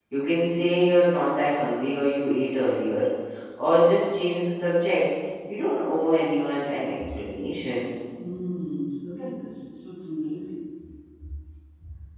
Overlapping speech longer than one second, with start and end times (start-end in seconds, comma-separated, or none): none